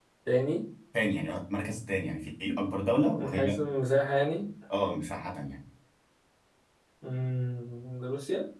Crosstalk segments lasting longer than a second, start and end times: none

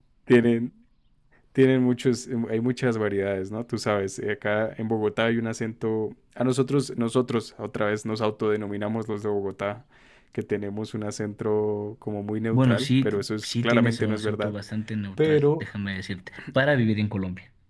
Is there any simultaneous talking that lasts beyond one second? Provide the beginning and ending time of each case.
12.5-14.5

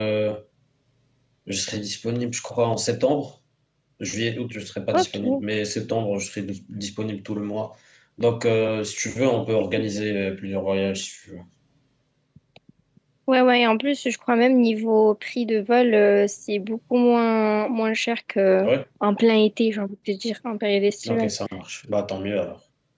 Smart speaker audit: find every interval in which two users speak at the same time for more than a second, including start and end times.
none

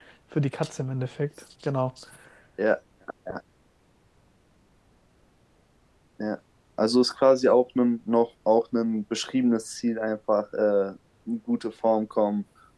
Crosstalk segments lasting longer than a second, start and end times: none

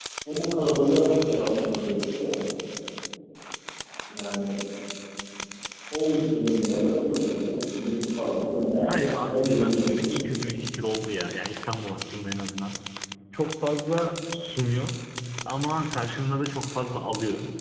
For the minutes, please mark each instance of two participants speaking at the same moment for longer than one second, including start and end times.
8.8-10.1

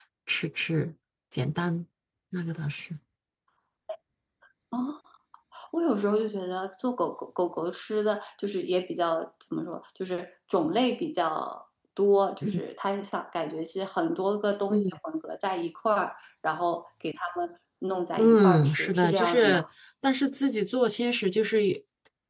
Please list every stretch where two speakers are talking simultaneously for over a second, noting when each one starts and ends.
18.2-19.6

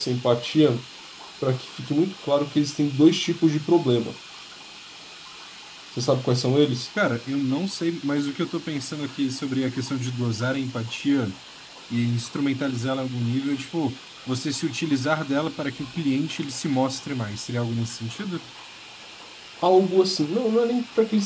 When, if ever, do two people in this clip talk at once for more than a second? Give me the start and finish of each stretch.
none

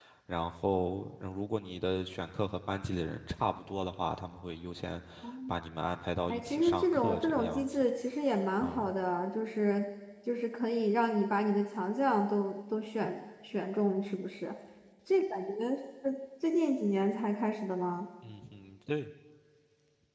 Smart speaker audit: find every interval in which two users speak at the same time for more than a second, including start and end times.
6.3-7.9

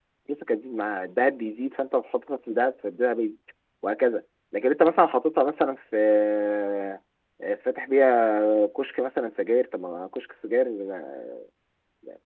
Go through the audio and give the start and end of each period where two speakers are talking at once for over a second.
none

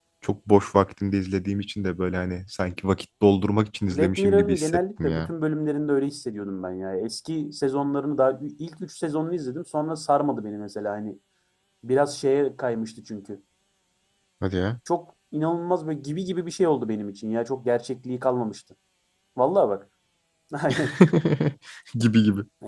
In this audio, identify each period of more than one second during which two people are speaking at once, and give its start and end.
3.9-5.3

